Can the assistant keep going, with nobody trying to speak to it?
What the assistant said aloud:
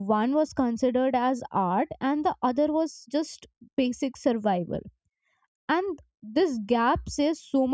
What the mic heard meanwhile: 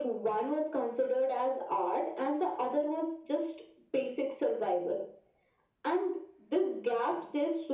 Yes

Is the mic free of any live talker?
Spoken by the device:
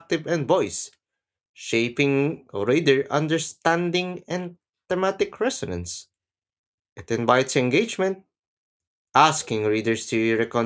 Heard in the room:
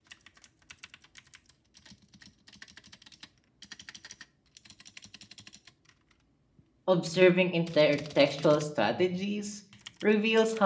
No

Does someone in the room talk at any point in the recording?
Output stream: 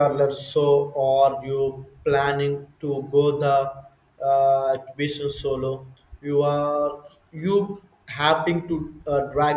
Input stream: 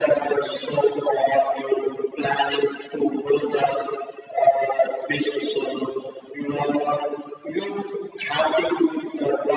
No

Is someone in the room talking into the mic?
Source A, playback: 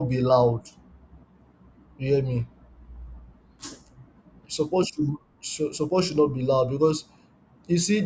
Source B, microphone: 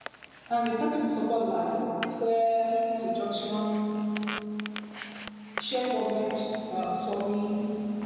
Yes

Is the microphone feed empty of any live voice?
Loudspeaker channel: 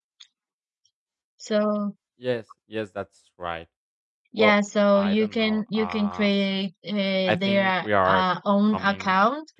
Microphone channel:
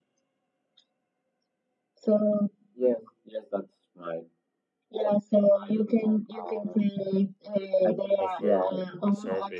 No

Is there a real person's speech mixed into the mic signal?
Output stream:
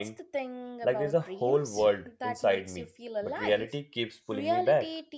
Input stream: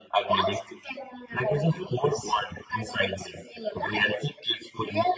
No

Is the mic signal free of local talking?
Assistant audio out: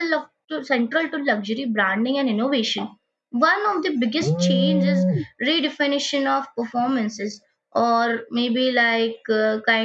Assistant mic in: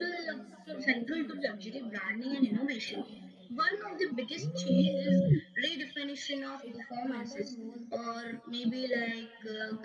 No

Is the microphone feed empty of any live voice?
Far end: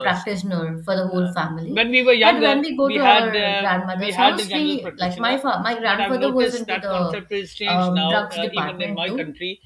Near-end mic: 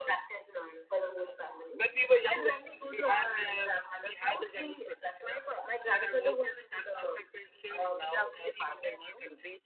Yes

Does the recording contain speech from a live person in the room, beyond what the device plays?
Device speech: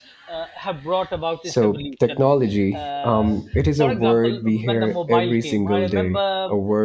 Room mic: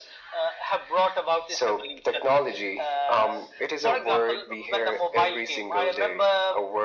No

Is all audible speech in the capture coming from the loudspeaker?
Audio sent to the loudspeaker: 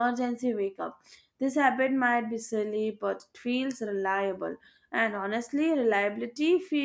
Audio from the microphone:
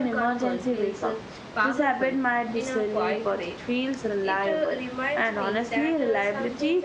No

